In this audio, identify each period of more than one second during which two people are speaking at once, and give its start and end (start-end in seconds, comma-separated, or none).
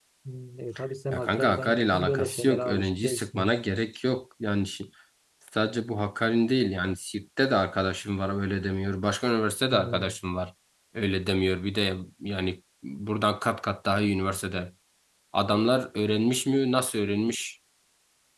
1.1-3.6